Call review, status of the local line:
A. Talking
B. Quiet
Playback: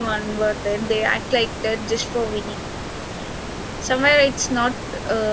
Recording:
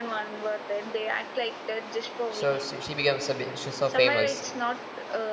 A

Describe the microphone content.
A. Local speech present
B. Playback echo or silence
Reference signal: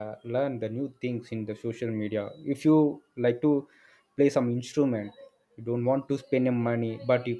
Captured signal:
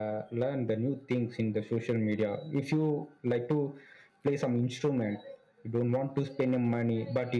B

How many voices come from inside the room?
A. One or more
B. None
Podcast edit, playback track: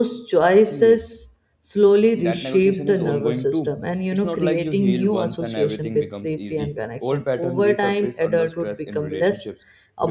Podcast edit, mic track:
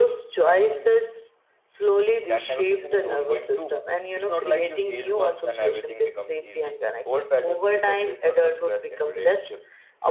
B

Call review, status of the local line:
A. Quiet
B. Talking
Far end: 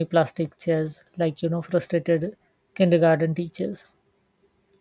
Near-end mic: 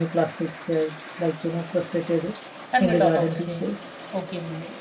B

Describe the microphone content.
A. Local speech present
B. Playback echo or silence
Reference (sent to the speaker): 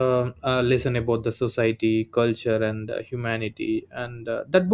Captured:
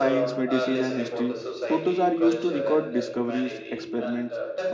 A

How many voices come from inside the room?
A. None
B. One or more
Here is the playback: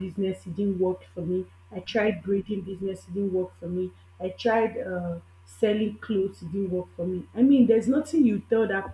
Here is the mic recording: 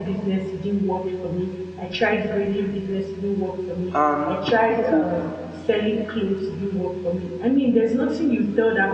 B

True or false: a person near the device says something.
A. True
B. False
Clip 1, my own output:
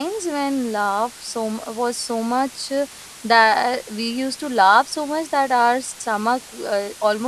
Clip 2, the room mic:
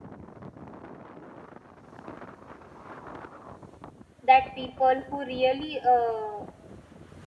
A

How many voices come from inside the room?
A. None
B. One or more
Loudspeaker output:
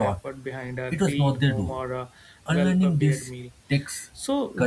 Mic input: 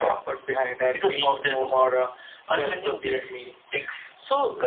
A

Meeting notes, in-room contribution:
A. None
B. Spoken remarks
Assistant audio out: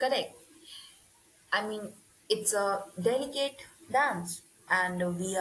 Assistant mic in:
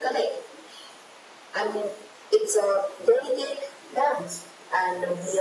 A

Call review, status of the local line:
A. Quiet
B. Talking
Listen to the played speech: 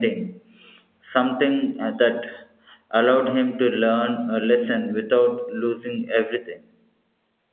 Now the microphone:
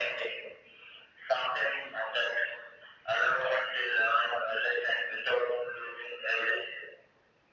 A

